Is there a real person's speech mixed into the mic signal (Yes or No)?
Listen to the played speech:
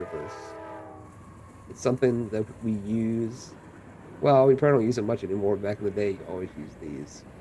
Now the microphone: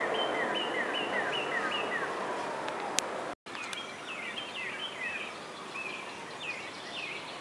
No